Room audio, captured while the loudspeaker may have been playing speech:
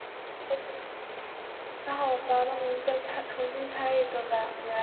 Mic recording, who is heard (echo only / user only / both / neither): user only